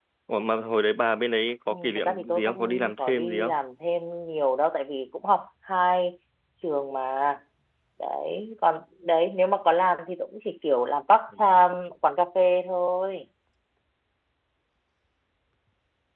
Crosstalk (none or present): present